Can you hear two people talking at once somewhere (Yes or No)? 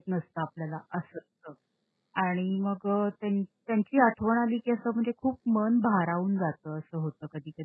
No